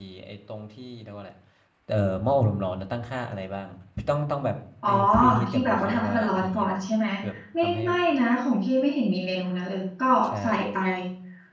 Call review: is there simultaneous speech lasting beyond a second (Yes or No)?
Yes